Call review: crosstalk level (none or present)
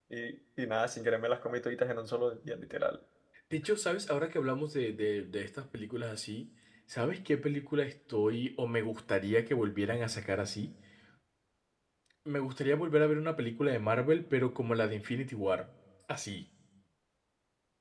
none